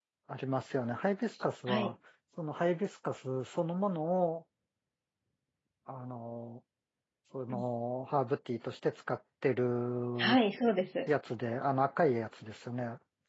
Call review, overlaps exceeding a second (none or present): none